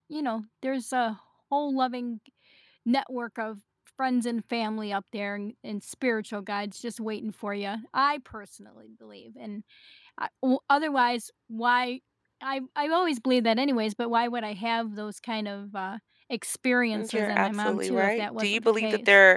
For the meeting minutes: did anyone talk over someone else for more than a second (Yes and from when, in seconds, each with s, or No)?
Yes, from 16.9 s